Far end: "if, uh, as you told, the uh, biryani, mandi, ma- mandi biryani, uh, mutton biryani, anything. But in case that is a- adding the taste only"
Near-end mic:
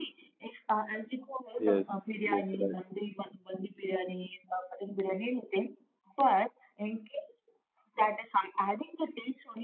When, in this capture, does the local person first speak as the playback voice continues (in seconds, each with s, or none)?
1.6 s